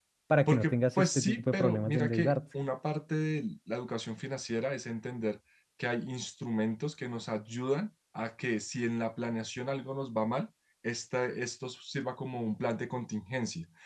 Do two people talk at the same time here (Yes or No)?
Yes